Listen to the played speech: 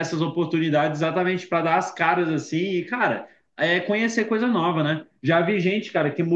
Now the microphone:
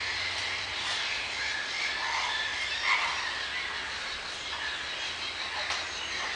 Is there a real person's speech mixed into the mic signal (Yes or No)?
No